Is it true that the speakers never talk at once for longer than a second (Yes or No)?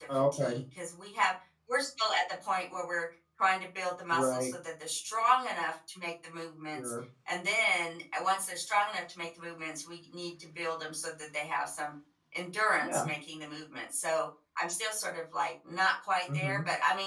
Yes